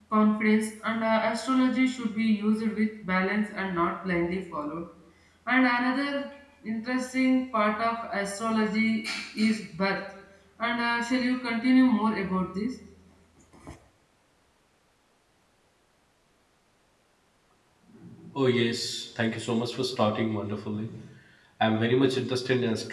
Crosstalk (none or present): none